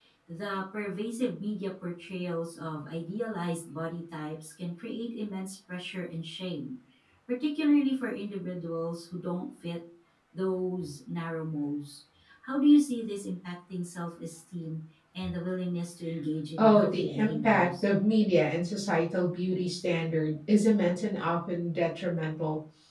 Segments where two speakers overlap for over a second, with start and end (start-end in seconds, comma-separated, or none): 16.6-17.8